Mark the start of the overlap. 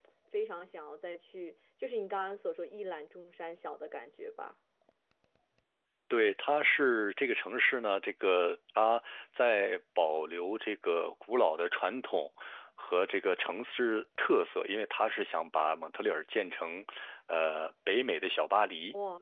none

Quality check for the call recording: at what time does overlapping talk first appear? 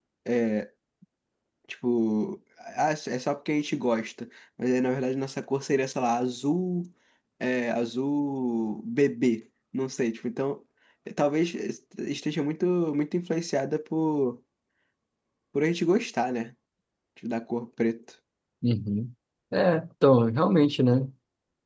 none

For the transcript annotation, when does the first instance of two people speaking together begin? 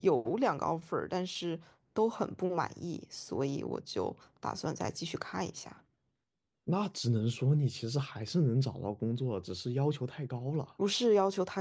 none

